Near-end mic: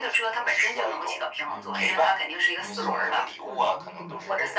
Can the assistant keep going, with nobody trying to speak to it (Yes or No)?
No